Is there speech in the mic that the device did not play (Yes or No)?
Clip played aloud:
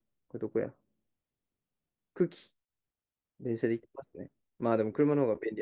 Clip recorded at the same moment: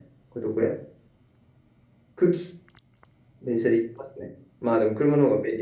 No